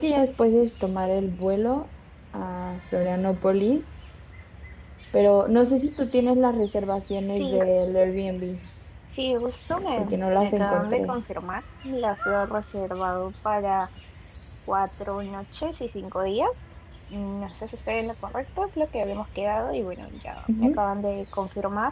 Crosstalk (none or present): present